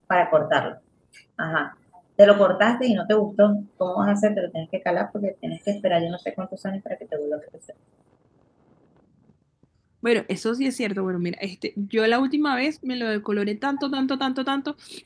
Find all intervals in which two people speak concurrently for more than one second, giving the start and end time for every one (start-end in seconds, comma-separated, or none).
none